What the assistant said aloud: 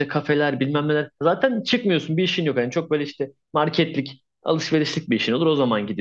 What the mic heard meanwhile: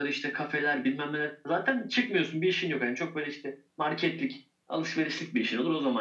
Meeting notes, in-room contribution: none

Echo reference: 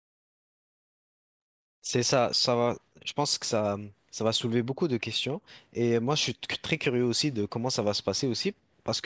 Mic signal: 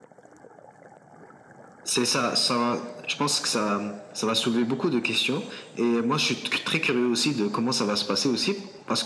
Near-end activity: none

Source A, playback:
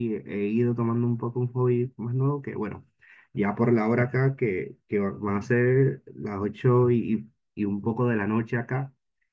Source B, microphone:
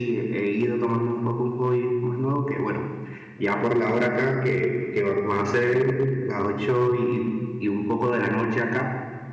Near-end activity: none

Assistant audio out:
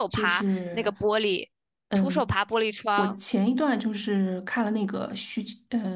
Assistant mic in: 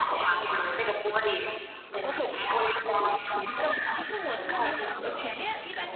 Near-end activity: present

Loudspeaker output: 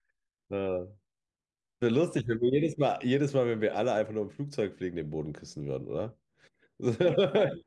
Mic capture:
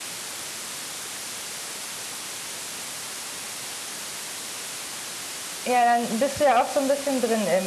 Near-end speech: present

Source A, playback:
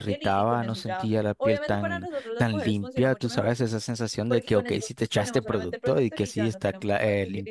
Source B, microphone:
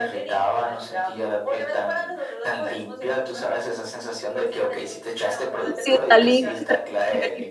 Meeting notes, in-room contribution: present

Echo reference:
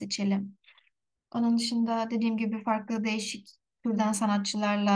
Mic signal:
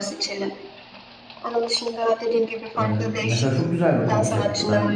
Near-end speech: present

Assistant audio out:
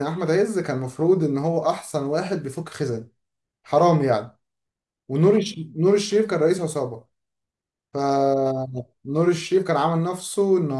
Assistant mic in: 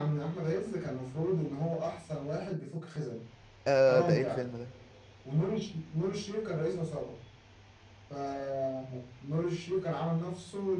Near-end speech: present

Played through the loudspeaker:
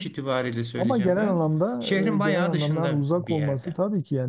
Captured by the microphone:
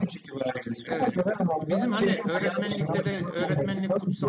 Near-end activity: present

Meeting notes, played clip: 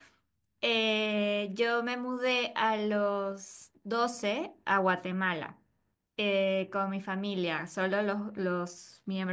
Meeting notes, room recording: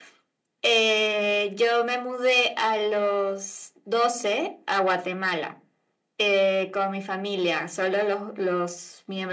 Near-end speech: none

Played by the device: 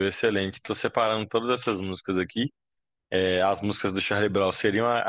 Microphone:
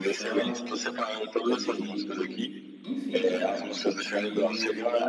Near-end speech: present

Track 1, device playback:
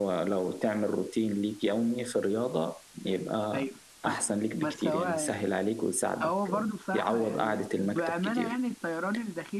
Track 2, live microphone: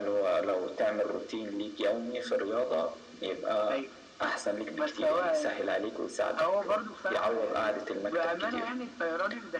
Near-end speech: none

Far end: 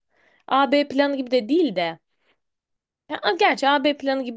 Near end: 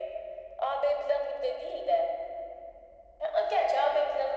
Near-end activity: none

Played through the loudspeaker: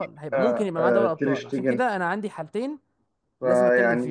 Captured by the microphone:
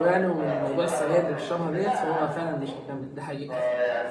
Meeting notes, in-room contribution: present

